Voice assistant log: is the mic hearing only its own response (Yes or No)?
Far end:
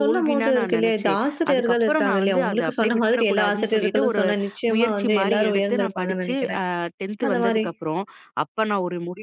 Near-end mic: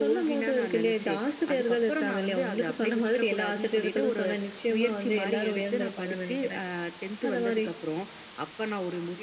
Yes